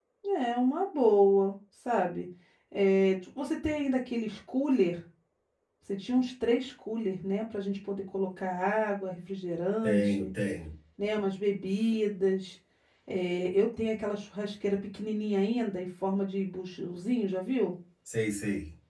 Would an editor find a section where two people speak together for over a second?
No

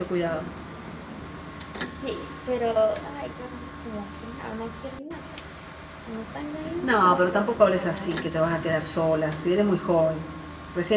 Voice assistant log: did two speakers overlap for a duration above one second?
Yes, from 6.8 s

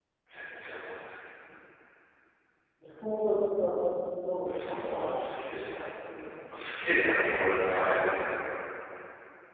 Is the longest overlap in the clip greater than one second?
No

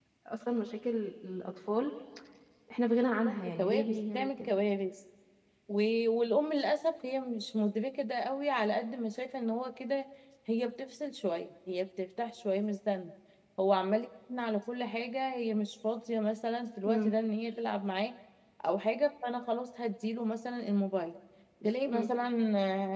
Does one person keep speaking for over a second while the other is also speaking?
Yes, from 3.3 s

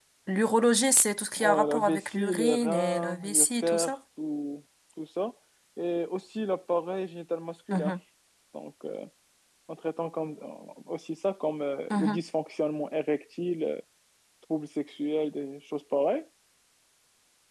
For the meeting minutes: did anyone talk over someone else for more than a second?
Yes, from 1.4 s

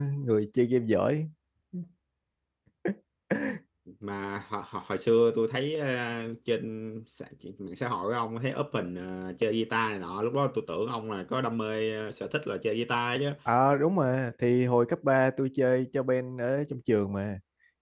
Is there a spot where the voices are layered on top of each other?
No

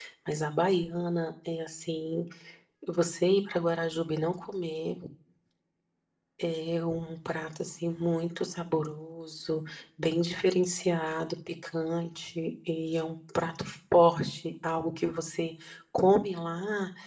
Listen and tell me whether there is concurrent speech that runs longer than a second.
No

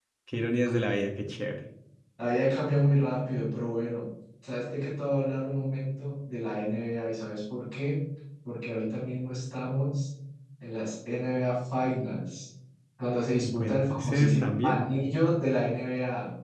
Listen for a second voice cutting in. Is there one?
Yes, from 13.4 s

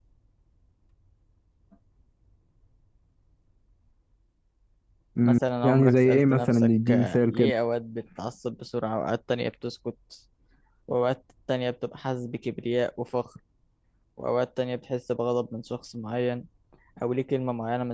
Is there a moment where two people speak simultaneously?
Yes, from 5.2 s

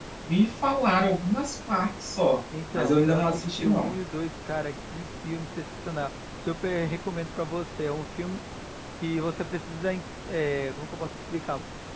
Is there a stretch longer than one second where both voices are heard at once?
Yes, from 2.5 s

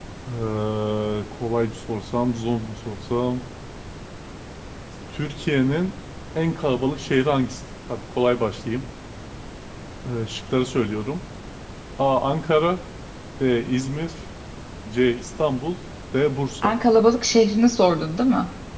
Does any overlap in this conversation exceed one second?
No

